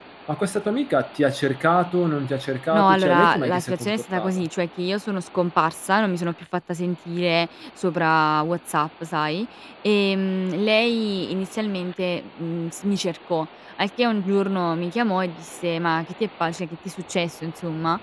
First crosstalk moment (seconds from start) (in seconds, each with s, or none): 2.7 s